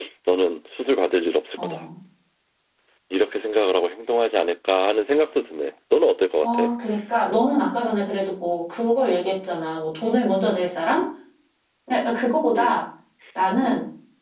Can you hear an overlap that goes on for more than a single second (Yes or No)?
No